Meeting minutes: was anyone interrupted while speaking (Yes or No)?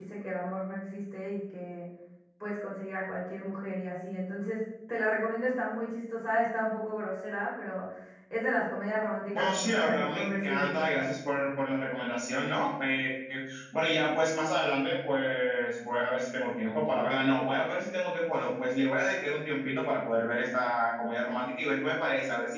Yes